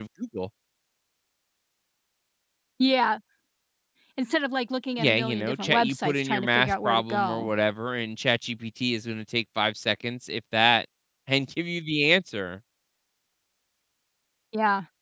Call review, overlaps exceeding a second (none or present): present